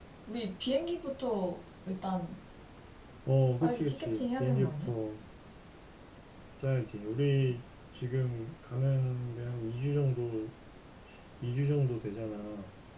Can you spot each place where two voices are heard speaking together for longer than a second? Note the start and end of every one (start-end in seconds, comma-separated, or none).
3.6-4.9